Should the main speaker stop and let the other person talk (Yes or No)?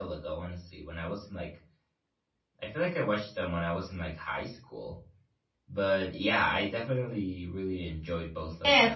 Yes